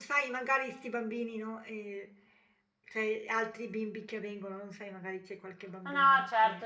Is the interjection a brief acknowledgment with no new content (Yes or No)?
No